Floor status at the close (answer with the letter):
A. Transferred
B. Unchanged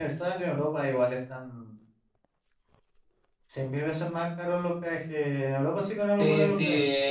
A